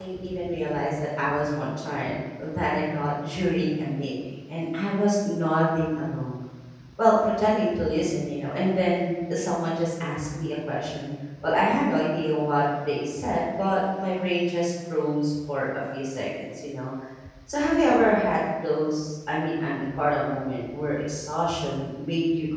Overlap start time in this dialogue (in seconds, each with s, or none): none